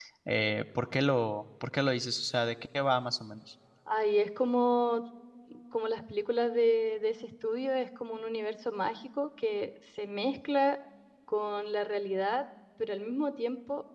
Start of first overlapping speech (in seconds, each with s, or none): none